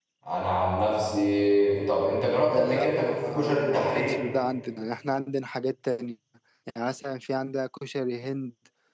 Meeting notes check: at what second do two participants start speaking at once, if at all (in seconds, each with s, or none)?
2.5 s